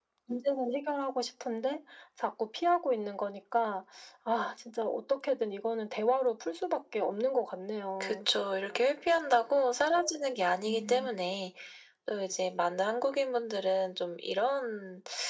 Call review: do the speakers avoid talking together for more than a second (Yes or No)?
Yes